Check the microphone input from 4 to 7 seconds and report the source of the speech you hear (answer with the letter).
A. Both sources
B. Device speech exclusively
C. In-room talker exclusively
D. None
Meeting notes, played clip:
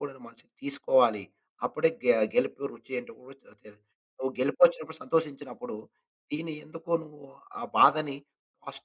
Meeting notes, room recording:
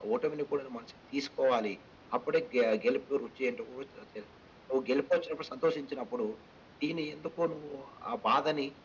B